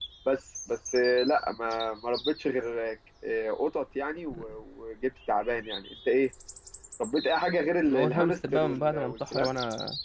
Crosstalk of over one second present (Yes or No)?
Yes